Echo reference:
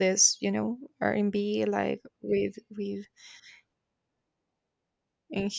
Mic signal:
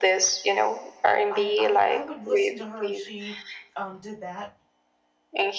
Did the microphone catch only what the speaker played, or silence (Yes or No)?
No